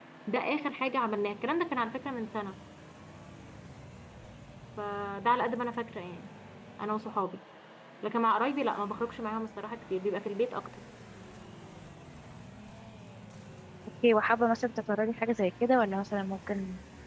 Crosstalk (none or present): none